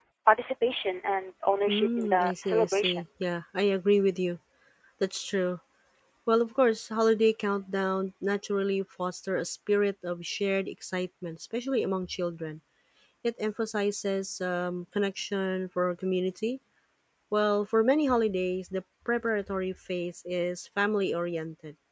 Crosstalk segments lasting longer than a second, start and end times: 1.7-3.0

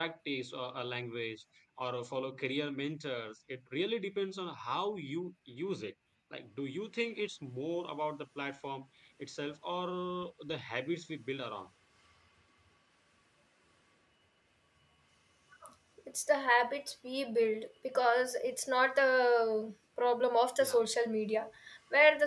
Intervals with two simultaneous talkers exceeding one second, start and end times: none

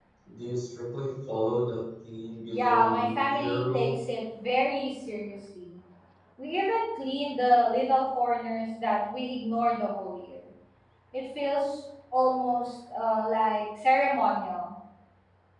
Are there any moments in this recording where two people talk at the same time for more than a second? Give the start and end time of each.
2.5-3.9

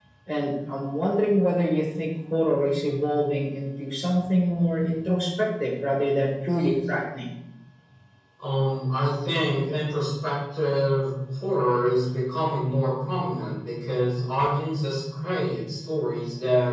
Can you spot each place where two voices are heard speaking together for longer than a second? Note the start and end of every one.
none

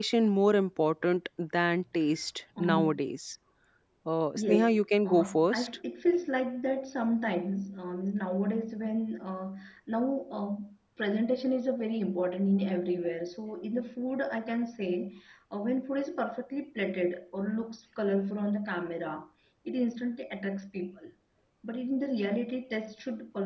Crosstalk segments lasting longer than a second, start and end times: 4.3-5.7

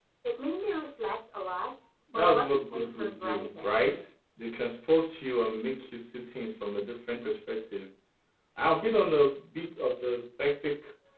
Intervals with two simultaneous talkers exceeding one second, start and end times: 2.1-3.7

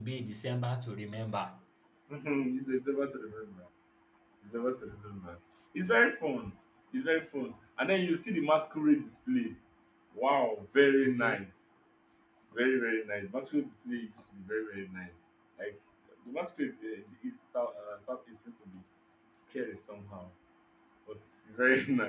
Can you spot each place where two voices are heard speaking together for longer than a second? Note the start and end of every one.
none

